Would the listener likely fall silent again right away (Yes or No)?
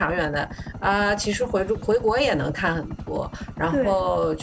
Yes